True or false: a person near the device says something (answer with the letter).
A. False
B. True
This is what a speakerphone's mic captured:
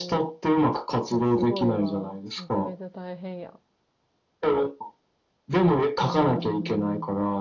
B